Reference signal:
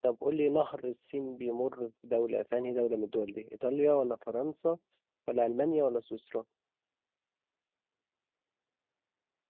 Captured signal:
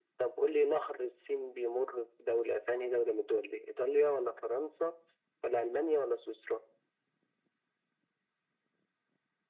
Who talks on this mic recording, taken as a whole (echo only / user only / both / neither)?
echo only